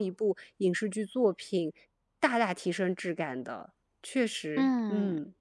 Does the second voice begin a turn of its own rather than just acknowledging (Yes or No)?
Yes